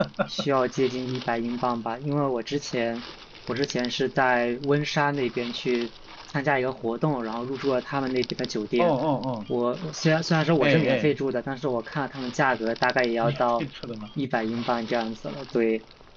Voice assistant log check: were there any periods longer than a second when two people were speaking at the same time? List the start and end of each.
none

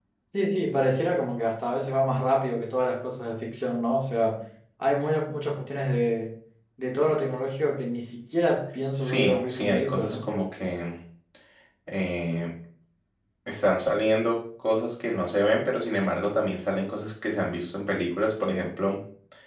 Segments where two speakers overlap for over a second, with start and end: 9.0-10.3

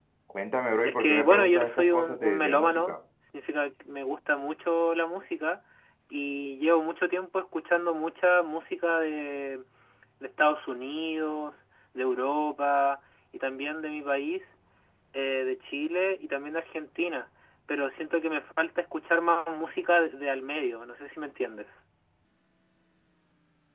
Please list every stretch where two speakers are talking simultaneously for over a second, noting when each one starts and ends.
0.8-3.0

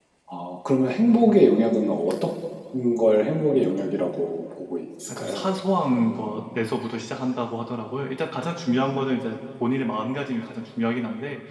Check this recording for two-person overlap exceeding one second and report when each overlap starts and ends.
none

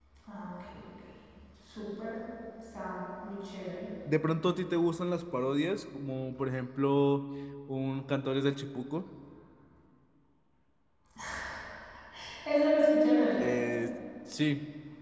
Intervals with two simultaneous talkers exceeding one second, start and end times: none

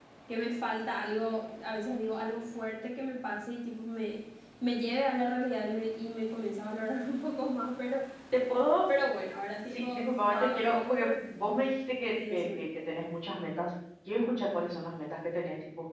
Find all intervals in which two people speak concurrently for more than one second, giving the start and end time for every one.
9.7-11.1

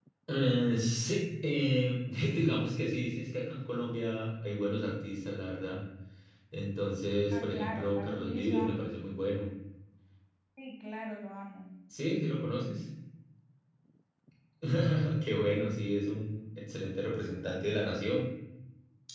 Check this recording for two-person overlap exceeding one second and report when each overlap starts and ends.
7.3-9.0

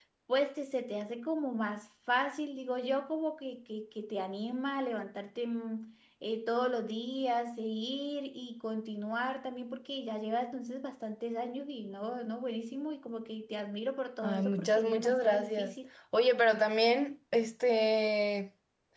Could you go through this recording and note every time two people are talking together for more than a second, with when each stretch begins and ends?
14.2-15.7

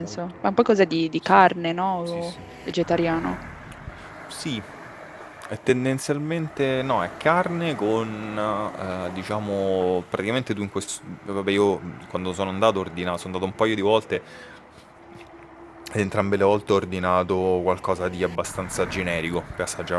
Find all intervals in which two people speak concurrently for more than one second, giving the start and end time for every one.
none

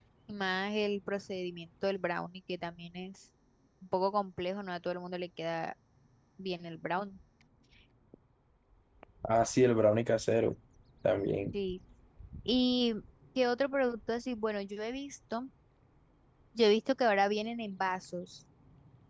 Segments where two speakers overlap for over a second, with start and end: none

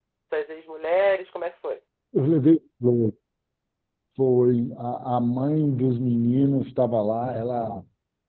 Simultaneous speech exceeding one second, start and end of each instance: none

